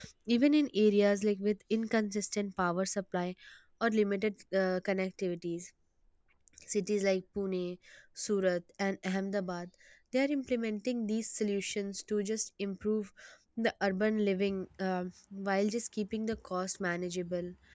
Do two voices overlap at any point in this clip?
No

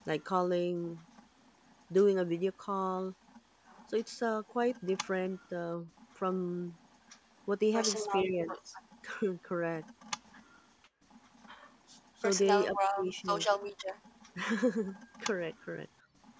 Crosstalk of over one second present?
Yes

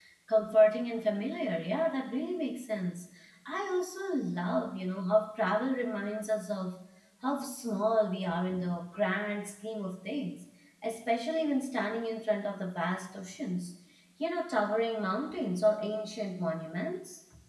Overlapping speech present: No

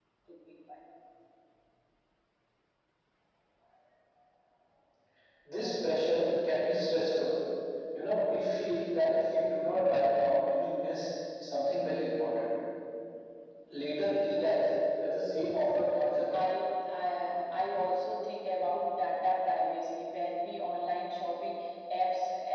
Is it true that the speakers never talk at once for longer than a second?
Yes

